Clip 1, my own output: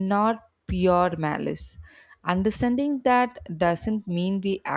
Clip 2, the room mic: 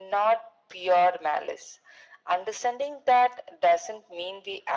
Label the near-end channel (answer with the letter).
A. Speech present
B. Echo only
B